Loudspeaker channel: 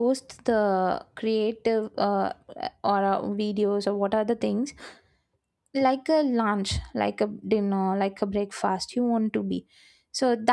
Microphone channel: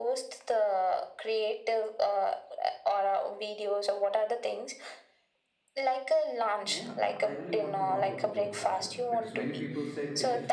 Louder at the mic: echo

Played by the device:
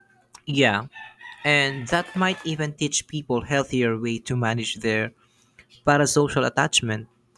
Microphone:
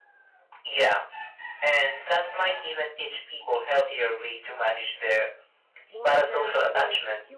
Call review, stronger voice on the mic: echo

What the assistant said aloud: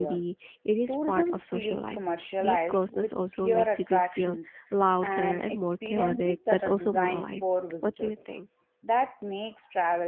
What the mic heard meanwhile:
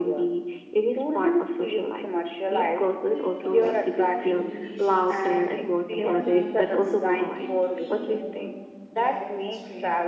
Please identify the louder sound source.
echo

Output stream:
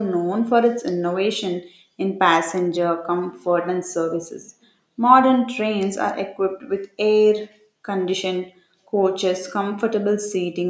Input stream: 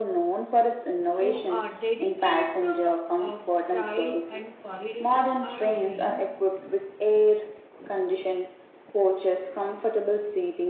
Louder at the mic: echo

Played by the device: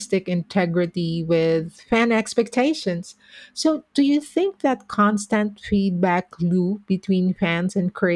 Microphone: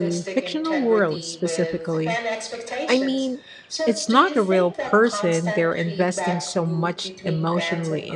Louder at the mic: user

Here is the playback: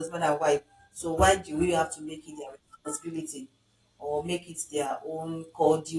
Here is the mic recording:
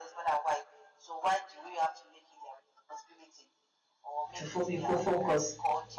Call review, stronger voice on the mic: user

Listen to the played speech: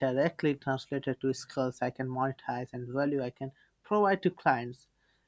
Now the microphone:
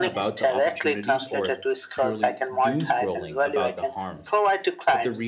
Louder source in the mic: echo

